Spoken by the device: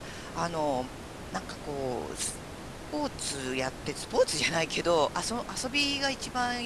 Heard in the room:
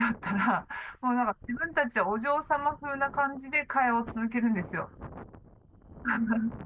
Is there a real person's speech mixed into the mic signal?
Yes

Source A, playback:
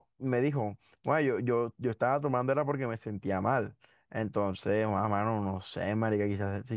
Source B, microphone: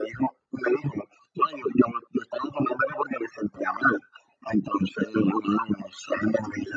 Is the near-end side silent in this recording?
Yes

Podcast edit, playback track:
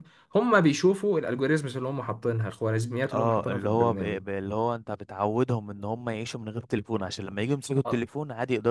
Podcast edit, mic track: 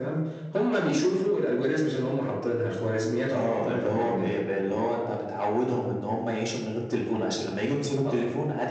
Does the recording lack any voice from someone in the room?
Yes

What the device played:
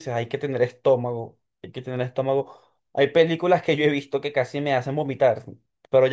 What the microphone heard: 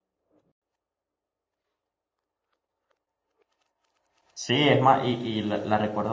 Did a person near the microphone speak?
Yes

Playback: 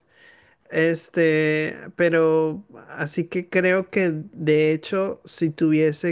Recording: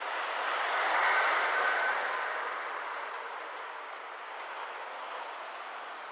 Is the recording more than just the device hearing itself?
No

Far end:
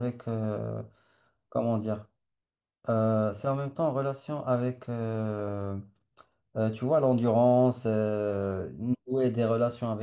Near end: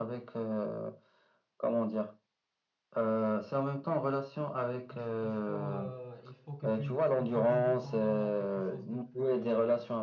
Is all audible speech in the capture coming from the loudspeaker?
No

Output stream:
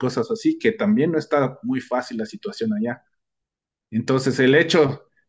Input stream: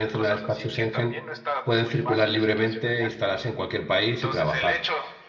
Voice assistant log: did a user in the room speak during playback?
Yes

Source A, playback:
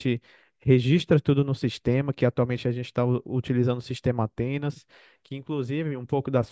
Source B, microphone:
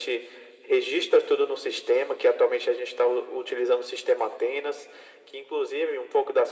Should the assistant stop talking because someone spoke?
No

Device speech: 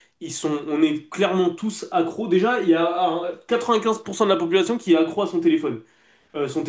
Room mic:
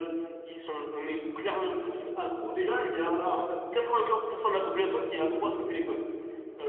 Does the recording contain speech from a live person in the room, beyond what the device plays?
No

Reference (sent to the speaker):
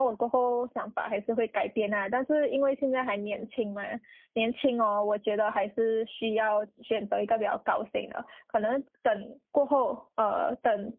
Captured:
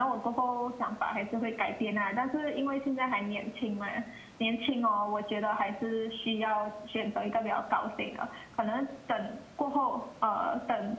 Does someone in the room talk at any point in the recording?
No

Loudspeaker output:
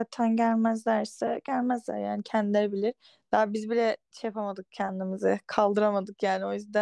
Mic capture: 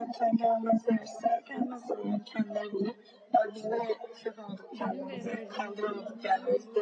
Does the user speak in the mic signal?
Yes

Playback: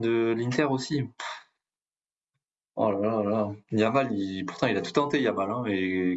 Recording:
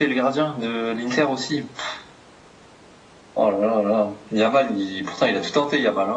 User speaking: No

